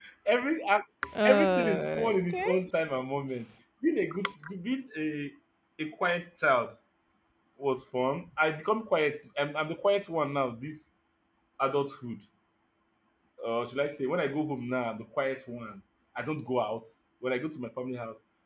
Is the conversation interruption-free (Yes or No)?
No